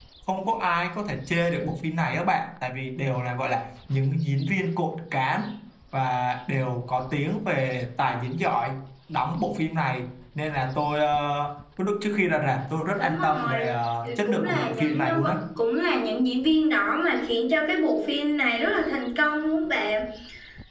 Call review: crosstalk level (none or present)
present